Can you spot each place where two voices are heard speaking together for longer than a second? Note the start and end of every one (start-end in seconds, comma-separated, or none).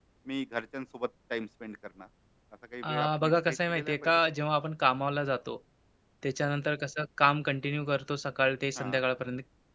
2.8-4.3